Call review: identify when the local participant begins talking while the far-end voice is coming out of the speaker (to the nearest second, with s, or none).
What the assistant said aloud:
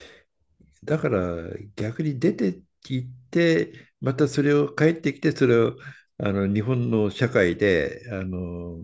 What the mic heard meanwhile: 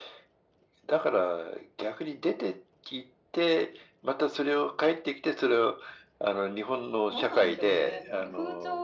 7 s